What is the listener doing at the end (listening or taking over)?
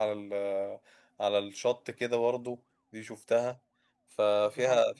listening